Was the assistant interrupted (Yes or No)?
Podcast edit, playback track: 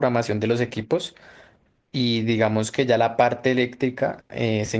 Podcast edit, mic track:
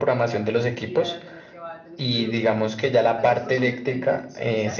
Yes